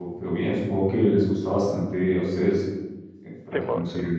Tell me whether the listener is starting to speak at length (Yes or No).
No